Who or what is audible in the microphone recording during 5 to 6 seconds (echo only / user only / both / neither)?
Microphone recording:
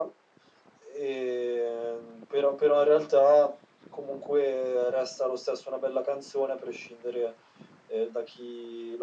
echo only